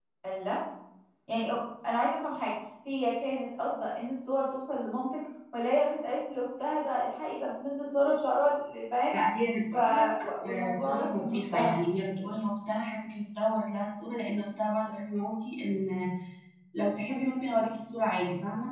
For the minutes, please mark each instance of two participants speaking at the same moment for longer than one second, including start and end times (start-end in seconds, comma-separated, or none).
10.4-11.7